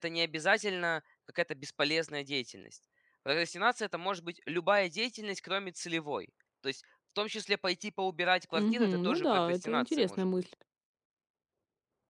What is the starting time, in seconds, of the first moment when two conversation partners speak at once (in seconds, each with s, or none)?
8.5 s